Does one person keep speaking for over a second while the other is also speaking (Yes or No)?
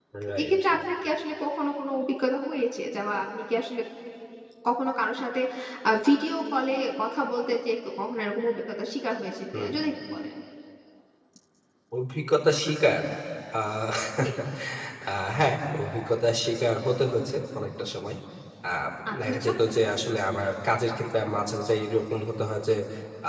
No